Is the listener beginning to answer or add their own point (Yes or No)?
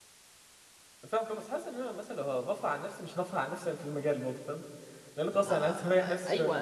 Yes